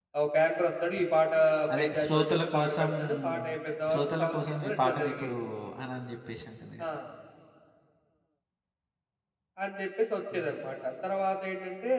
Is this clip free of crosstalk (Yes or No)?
No